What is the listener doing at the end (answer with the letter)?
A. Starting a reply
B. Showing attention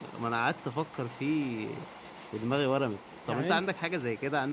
B